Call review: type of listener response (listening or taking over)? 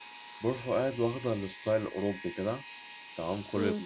listening